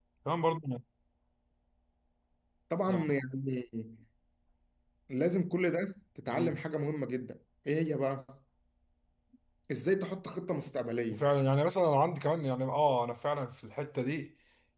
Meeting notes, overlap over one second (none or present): none